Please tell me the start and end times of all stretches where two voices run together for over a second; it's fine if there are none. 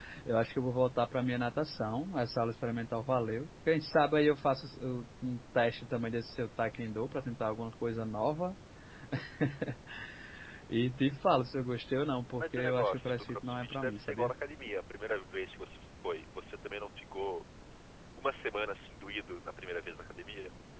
12.4-14.3

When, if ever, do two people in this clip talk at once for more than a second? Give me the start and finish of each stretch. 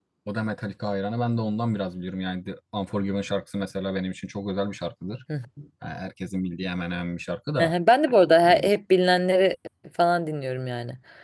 none

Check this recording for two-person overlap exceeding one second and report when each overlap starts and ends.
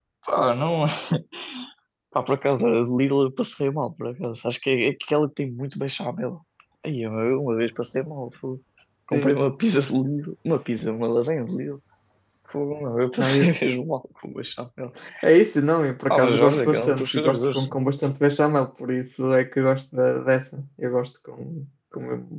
16.1-17.7

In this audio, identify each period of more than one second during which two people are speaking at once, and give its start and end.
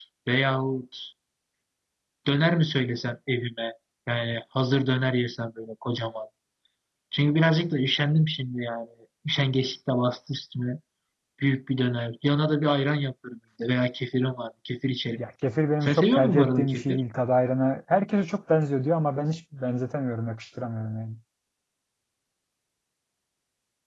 15.8-17.0

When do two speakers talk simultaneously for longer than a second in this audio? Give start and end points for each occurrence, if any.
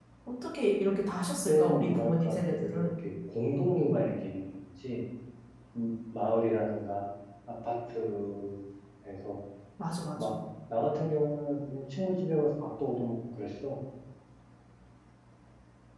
1.5-2.9

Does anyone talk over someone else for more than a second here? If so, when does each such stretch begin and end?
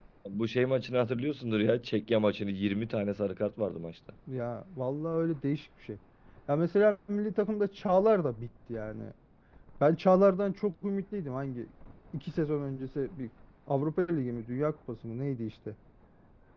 none

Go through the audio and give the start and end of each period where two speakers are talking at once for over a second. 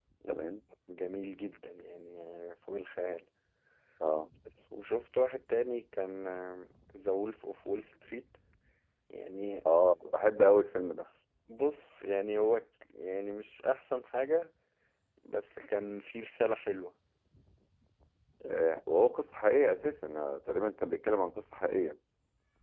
none

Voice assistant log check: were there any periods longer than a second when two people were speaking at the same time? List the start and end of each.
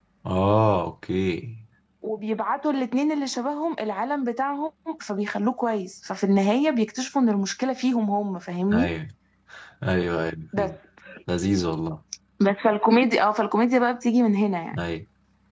none

